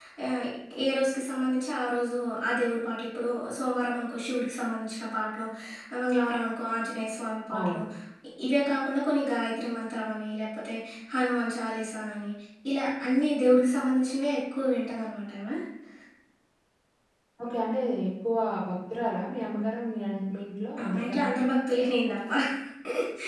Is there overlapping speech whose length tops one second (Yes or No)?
No